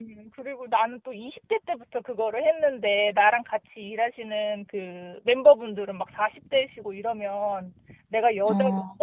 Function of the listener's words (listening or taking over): listening